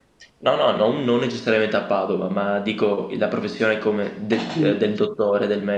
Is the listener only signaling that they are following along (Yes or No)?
Yes